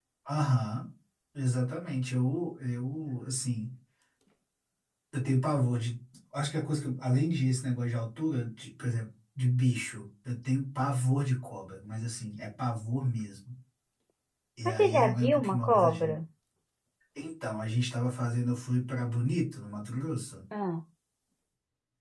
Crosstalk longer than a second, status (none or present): present